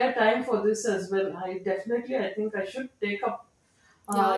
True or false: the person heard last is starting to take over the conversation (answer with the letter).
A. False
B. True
B